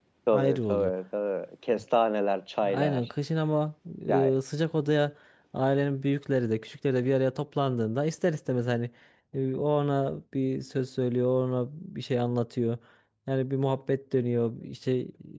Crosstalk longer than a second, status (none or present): none